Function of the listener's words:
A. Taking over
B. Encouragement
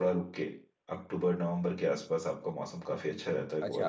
A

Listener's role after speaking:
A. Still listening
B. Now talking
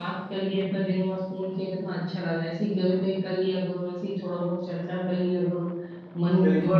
B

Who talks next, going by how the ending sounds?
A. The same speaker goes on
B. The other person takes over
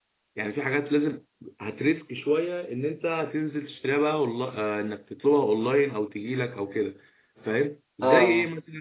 A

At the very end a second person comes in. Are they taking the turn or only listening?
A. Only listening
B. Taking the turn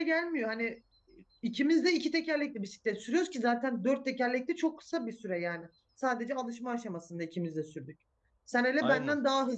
A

